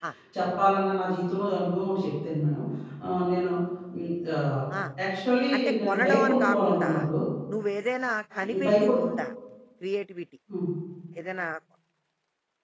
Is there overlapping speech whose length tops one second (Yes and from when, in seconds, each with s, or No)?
Yes, from 5.5 s